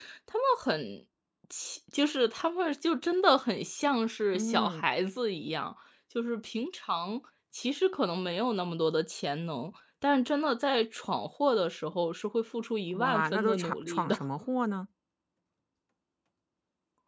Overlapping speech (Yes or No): Yes